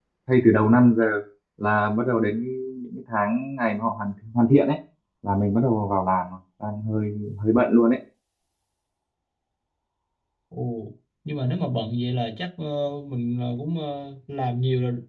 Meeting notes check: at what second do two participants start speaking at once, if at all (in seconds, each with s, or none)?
none